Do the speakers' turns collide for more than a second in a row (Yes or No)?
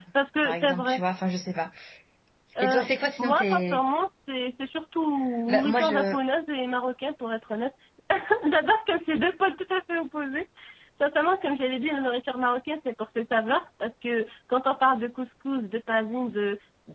Yes